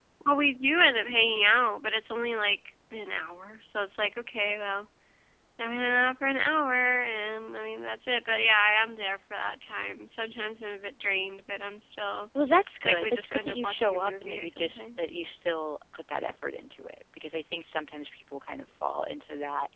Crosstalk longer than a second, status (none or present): present